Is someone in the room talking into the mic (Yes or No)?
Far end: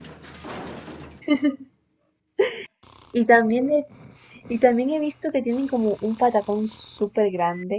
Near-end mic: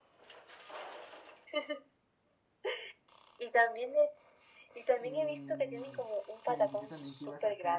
Yes